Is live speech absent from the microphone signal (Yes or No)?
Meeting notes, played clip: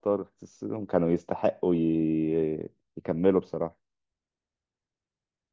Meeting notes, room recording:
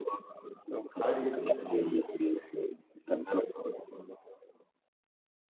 No